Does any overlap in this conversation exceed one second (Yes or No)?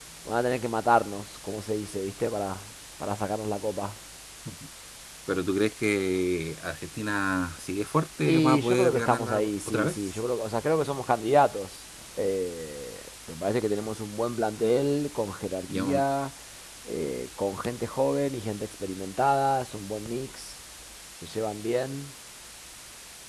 Yes